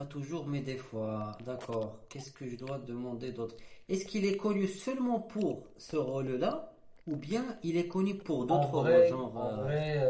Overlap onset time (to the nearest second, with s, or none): 8 s